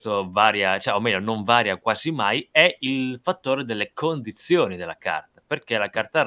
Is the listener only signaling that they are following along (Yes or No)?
Yes